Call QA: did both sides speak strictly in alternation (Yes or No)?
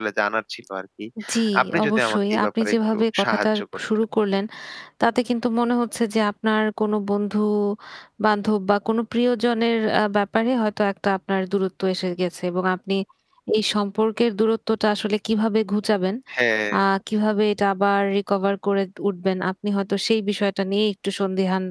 No